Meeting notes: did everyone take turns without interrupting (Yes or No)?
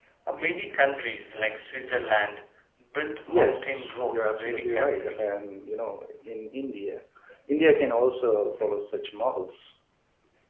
No